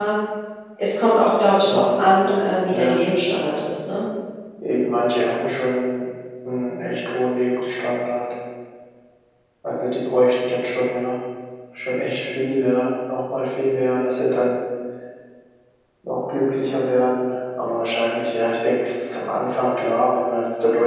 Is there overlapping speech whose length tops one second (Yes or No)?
No